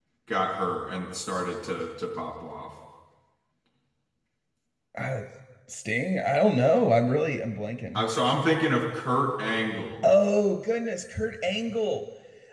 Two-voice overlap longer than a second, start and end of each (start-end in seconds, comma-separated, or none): none